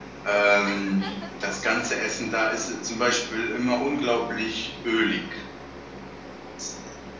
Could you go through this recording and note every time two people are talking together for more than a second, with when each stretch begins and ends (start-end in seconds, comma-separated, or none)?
none